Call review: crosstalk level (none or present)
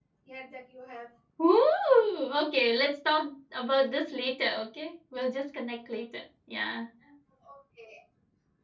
none